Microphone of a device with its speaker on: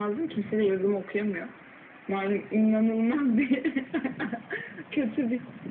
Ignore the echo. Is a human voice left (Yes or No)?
No